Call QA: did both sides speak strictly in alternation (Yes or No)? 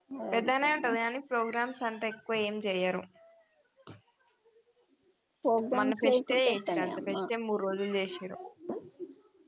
No